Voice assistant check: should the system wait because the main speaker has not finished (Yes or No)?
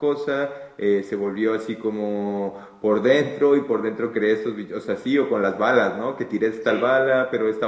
Yes